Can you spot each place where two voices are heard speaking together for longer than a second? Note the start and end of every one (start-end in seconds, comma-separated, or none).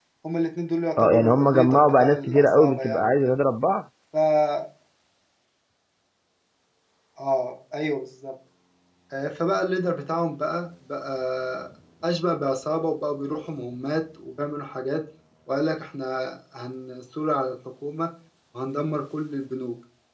1.0-3.4